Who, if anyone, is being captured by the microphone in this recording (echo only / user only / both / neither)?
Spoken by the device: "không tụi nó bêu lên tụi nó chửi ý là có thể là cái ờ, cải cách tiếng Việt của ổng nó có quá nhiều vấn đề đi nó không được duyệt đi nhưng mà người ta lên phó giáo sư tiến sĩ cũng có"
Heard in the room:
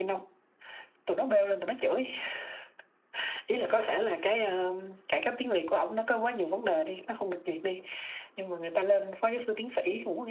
echo only